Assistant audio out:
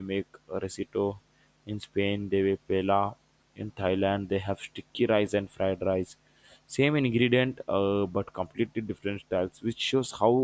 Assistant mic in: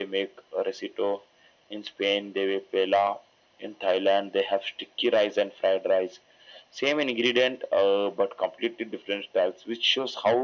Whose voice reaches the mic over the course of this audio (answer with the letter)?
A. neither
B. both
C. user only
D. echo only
D